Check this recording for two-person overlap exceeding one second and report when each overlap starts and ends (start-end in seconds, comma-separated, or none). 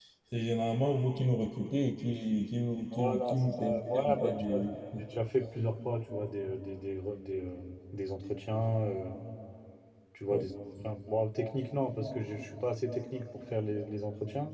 2.9-4.6